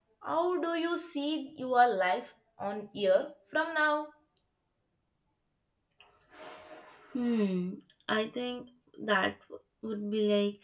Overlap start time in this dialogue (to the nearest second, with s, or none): none